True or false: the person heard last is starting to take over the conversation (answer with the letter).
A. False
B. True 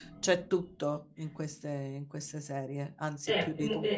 B